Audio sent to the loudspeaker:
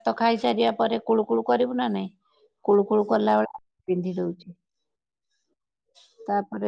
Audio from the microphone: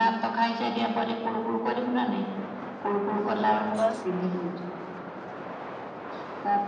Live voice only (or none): ଏଇଆ ପା